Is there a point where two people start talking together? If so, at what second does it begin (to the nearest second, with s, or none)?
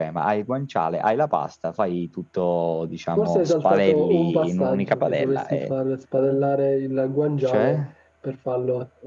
3 s